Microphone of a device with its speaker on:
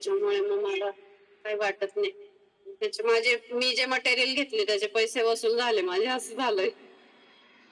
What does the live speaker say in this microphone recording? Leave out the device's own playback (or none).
none